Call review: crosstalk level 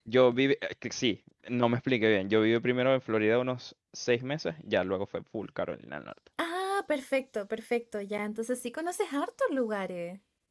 none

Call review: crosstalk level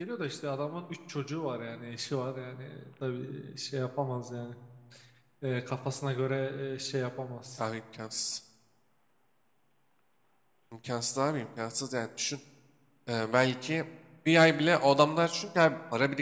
none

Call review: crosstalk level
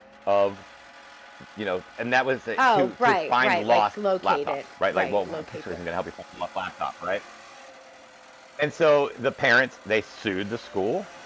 present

